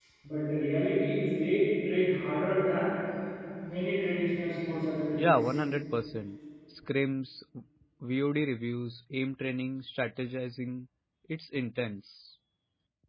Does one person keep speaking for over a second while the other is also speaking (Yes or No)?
No